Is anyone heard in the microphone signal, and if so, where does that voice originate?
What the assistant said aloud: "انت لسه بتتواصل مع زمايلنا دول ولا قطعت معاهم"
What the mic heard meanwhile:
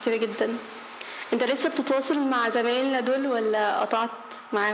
echo only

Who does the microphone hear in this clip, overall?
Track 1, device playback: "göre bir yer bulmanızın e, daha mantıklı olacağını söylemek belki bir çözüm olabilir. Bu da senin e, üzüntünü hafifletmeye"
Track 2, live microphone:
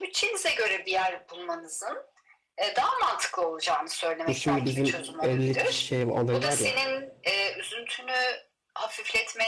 both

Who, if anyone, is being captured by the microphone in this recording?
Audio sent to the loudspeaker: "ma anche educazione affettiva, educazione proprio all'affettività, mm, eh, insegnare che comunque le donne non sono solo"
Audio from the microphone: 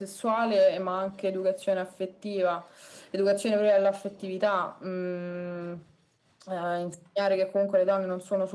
echo only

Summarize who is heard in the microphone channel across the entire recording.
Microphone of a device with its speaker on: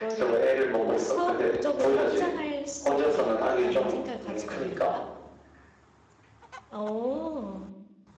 both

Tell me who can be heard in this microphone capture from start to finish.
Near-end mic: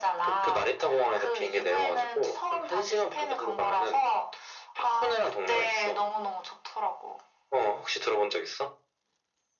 echo only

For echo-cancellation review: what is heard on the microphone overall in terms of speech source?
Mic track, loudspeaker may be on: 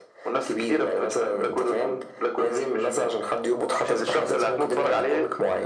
echo only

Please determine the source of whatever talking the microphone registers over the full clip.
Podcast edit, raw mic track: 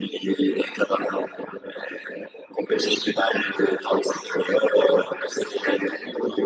echo only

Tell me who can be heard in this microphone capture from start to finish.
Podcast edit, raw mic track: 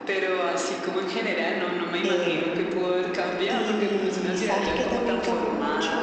both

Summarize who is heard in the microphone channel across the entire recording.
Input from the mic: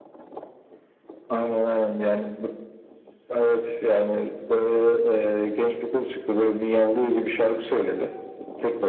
echo only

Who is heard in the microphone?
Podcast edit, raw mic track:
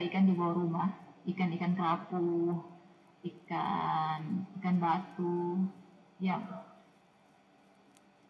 echo only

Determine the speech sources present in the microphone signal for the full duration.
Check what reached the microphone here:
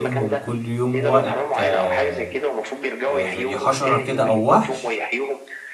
both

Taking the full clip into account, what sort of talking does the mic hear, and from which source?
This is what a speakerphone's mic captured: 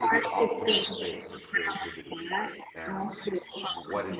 both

